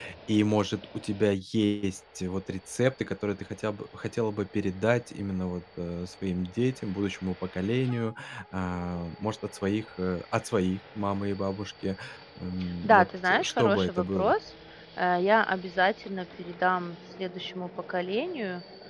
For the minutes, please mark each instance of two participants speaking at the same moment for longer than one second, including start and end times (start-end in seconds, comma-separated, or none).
12.8-14.3